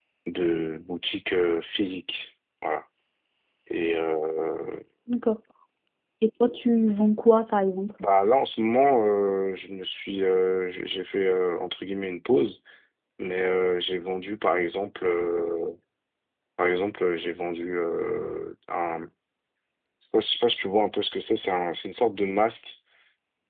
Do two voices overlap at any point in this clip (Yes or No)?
No